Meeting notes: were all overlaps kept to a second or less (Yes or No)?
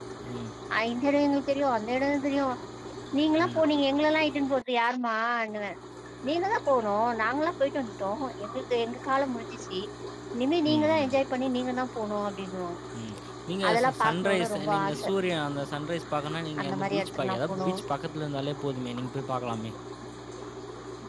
No